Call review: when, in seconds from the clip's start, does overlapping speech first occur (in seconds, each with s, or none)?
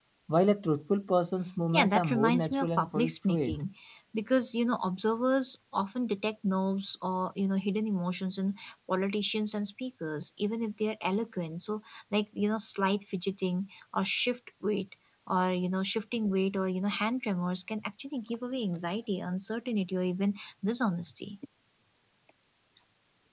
1.7 s